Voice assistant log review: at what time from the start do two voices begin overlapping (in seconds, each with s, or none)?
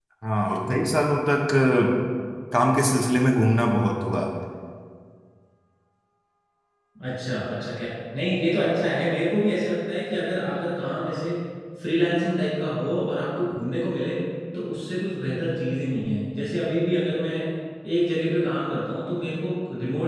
none